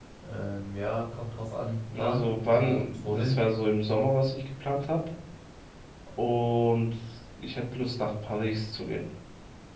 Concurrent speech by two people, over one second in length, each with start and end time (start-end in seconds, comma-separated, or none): 1.9-3.4